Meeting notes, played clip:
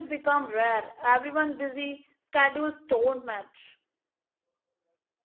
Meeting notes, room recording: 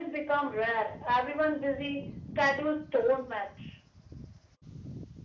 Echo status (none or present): present